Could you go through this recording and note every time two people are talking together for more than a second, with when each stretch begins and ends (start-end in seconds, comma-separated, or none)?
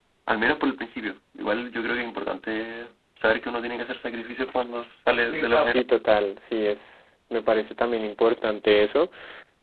none